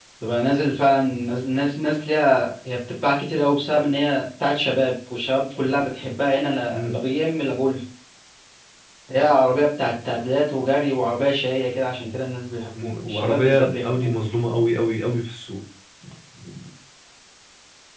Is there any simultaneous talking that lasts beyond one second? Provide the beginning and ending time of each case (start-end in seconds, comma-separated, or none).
12.8-14.1